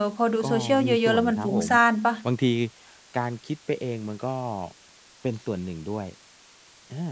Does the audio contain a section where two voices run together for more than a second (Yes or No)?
Yes